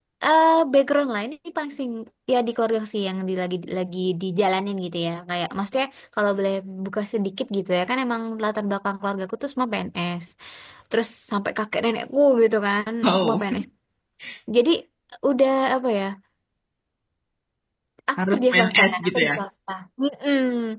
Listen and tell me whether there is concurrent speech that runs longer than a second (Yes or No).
Yes